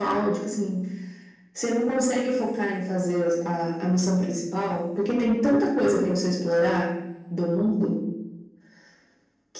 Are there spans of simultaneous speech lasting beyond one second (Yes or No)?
No